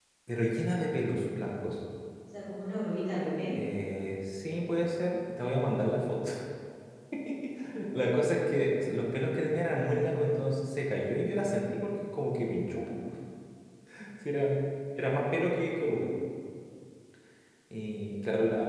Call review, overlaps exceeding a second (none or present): none